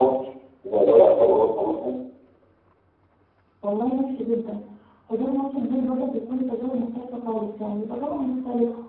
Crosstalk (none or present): none